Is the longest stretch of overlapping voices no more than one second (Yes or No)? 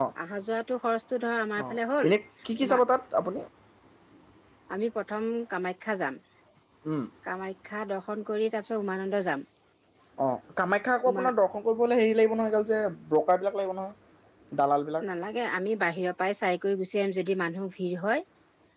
Yes